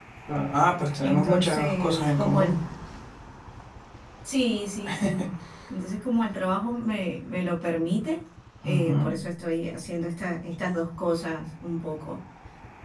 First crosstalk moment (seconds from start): 1 s

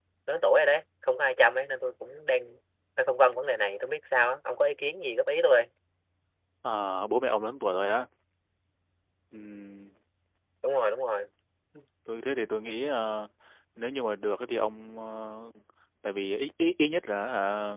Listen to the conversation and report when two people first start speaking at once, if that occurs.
none

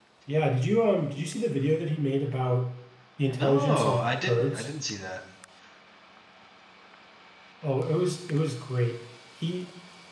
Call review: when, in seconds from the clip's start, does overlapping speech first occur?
3 s

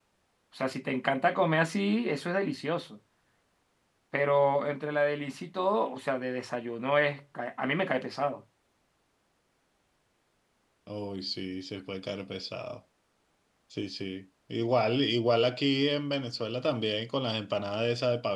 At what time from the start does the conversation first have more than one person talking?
none

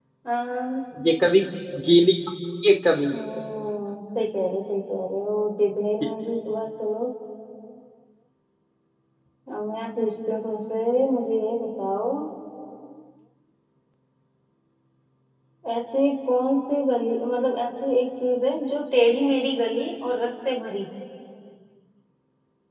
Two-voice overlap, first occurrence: none

